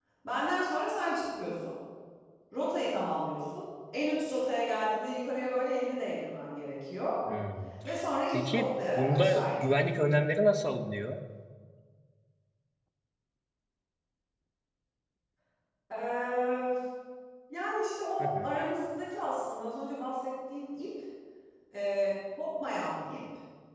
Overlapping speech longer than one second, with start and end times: 8.3-9.8

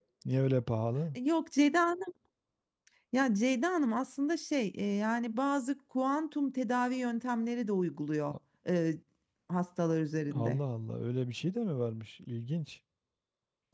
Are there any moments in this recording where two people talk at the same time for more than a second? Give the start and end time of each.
none

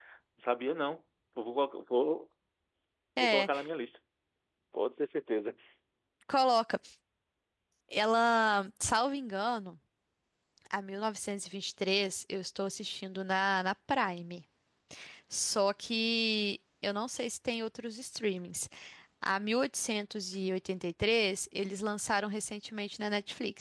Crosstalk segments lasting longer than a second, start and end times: none

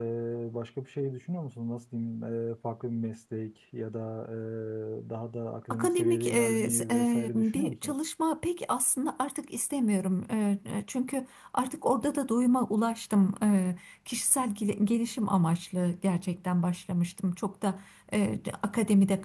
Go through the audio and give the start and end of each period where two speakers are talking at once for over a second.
5.7-7.9

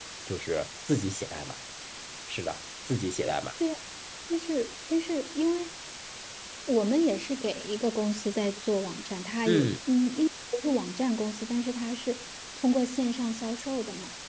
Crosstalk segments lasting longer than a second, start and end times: none

